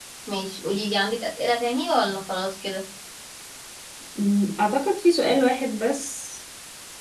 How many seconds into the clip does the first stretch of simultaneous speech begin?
none

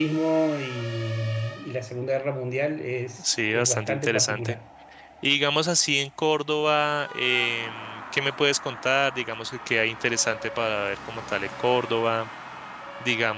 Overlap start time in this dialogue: 3 s

